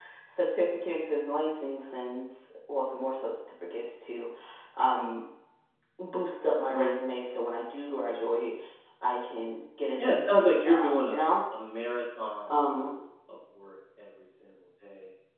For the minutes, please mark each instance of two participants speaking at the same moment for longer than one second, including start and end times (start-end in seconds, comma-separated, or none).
10.0-11.3